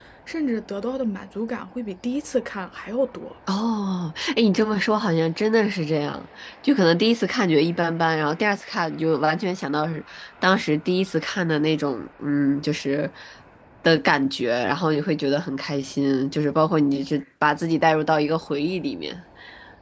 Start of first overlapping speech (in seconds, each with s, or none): none